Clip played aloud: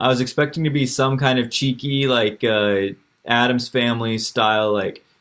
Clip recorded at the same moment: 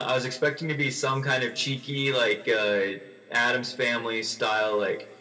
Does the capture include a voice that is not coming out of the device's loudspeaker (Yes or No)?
No